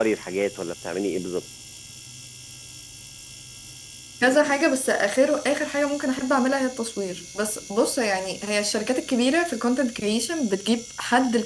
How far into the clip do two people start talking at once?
none

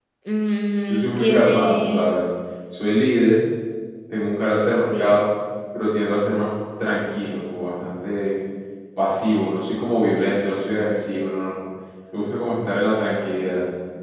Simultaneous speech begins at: 0.9 s

